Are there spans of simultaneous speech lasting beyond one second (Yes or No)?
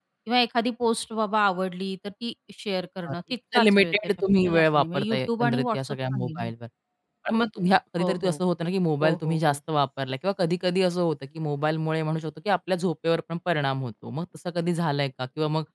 Yes